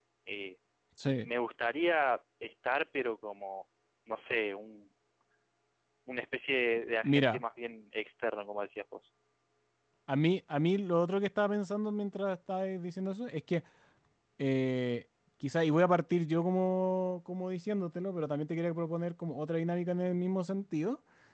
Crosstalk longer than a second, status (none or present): none